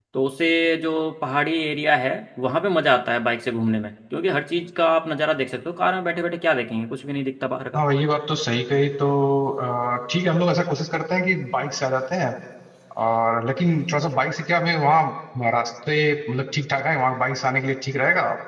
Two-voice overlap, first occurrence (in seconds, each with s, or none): none